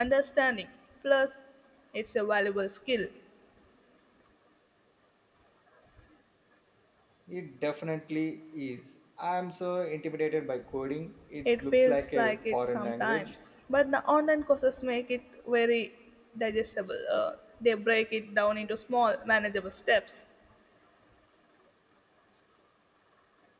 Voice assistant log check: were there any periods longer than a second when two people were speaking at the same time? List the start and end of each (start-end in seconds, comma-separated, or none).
11.4-13.4